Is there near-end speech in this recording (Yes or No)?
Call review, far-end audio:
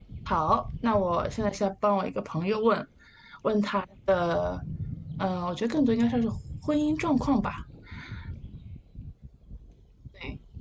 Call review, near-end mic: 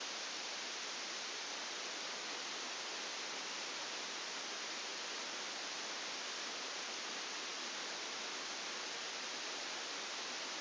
No